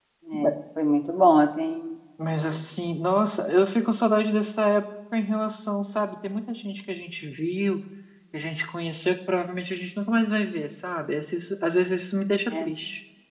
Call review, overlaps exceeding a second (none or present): none